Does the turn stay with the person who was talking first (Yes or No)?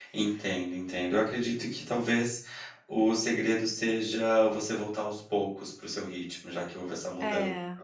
Yes